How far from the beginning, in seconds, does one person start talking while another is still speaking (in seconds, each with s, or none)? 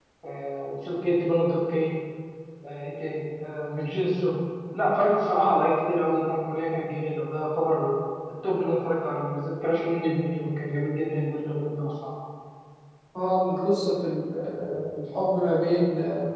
none